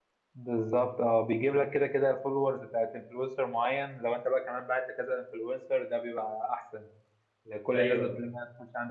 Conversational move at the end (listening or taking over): listening